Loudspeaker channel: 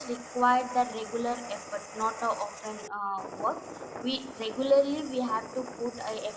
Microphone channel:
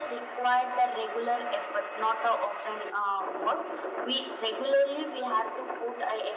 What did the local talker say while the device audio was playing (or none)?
none